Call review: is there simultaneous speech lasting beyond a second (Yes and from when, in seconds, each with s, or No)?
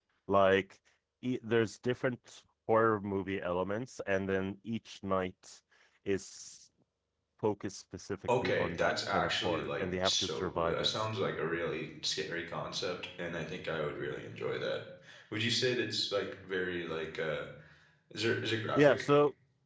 Yes, from 8.4 s